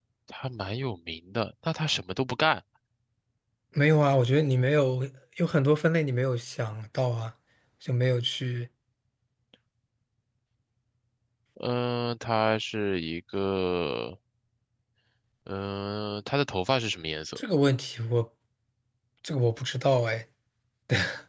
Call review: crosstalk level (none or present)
none